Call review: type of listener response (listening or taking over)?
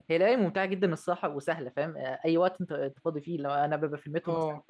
listening